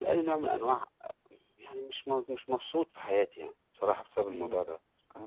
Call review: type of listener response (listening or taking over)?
taking over